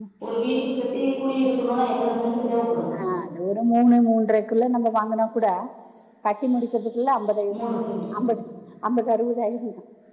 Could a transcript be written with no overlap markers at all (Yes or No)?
Yes